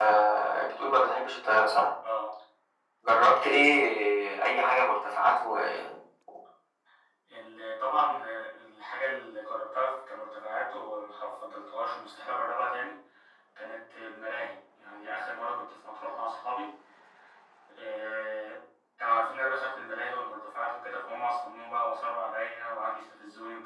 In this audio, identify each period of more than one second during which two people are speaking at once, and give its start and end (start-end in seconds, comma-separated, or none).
none